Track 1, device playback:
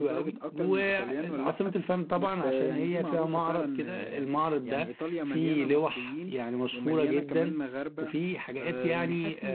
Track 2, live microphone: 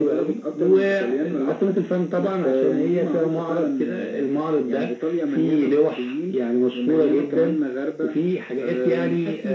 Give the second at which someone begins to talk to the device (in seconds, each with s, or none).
none